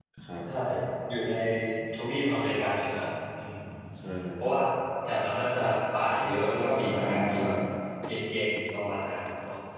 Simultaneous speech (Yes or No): Yes